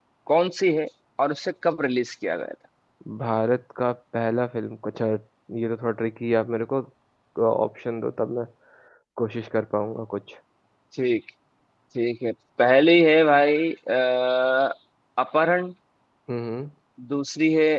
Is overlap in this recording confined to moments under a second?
Yes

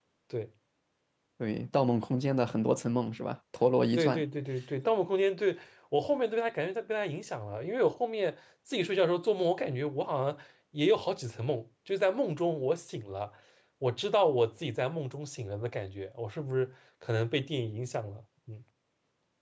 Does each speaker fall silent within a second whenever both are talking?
Yes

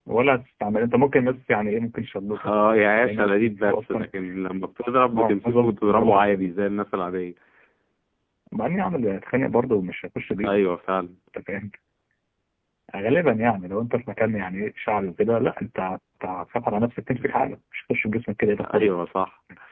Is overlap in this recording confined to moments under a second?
No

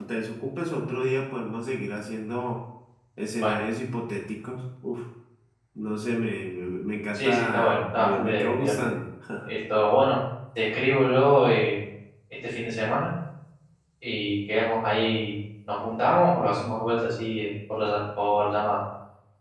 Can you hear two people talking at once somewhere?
Yes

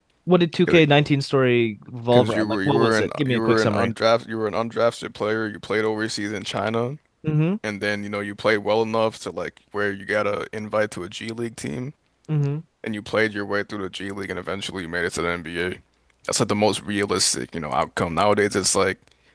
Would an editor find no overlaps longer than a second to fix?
No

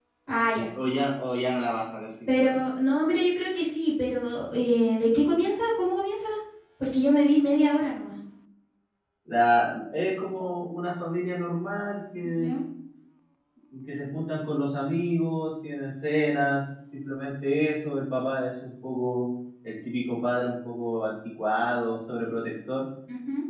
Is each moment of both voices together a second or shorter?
Yes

